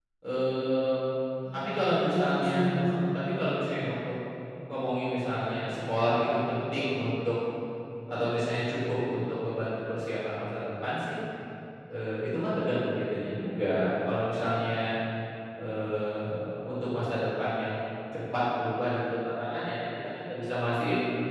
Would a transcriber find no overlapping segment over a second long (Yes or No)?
No